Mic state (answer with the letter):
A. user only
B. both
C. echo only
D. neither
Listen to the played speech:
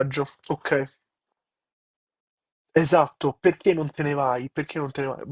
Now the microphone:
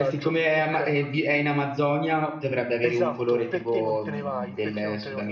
B